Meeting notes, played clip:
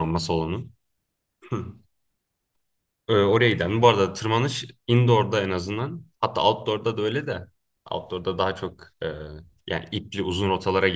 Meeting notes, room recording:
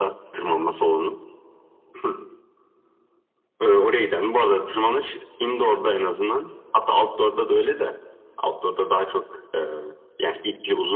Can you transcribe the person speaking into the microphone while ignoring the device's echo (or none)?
none